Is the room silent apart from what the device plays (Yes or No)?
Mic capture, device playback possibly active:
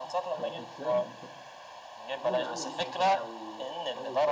No